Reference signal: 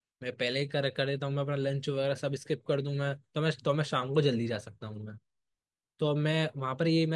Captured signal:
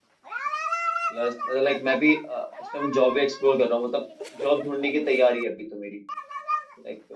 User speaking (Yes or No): Yes